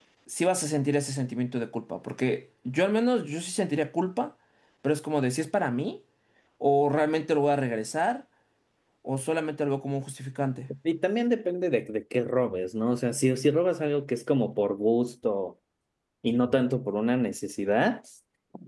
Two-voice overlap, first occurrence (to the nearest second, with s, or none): none